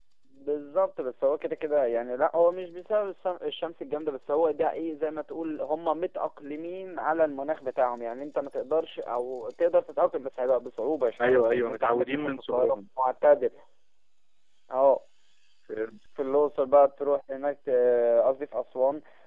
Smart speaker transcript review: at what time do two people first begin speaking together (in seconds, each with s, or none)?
11.2 s